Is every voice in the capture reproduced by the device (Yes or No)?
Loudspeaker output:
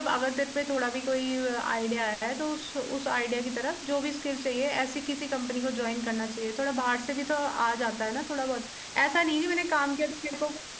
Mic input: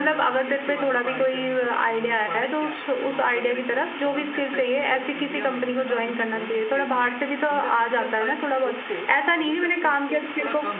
No